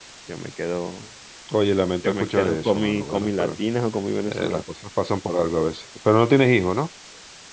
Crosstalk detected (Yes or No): Yes